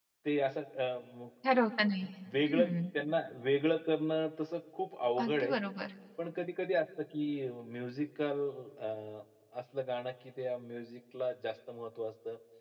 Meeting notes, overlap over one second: none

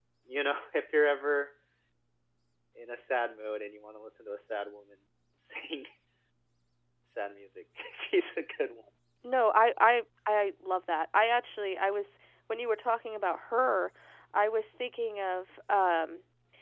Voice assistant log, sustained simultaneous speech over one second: none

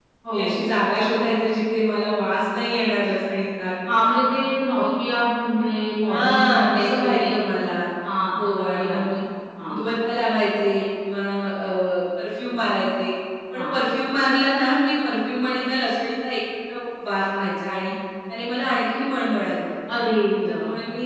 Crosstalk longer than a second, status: present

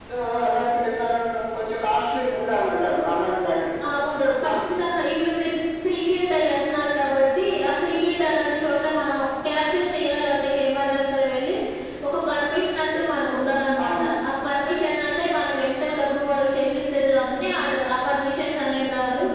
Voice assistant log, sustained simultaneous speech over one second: none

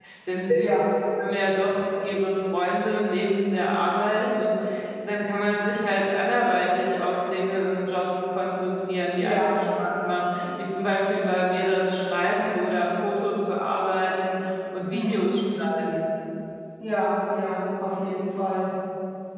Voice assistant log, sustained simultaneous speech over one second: none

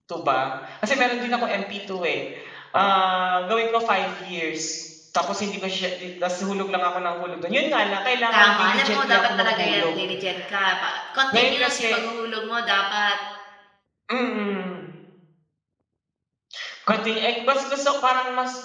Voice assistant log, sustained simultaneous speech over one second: present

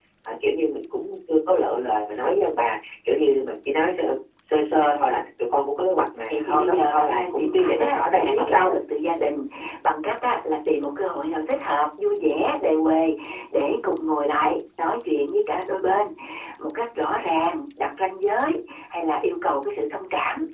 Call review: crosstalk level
present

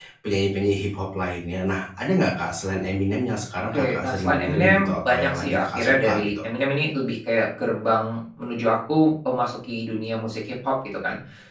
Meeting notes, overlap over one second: present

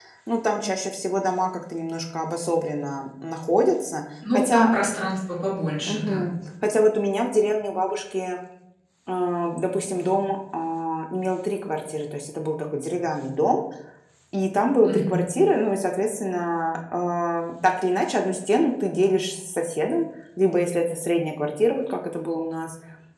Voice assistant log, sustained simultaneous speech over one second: none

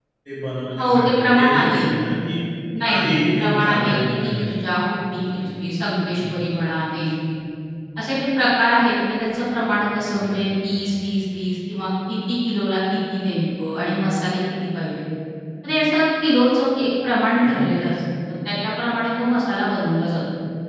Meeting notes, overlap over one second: present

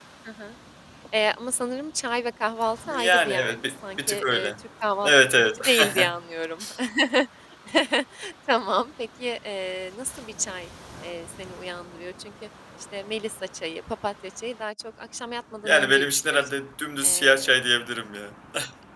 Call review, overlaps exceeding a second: present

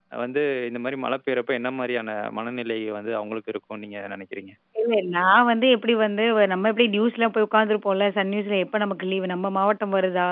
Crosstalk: none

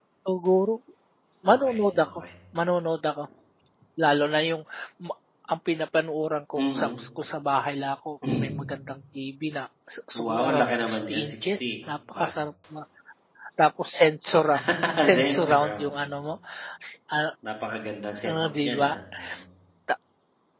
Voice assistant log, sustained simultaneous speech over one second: present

